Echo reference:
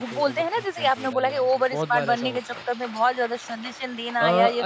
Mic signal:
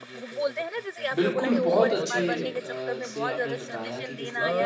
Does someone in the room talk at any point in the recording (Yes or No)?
Yes